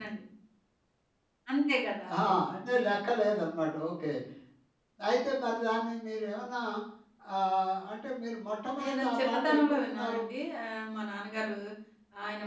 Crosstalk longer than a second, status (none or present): present